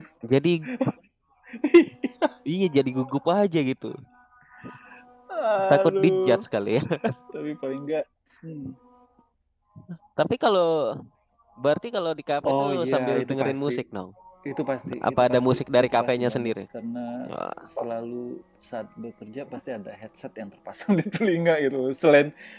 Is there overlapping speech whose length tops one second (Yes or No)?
Yes